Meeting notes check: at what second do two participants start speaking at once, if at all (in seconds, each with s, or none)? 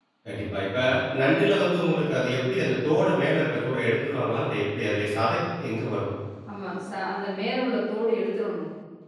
none